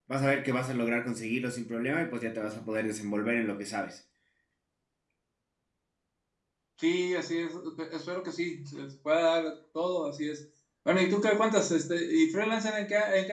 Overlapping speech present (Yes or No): No